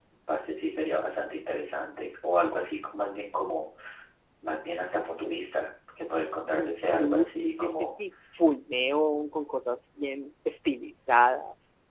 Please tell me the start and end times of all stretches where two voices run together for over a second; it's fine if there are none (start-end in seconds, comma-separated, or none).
6.6-8.0